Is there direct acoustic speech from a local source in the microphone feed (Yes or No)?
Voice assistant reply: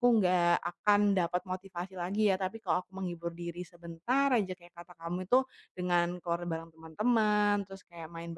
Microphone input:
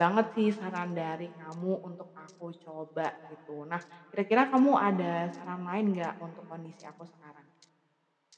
Yes